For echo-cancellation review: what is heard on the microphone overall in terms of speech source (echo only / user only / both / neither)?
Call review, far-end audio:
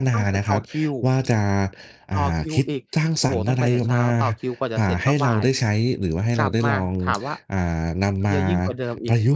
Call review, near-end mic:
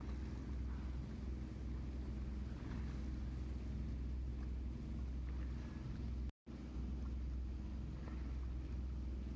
neither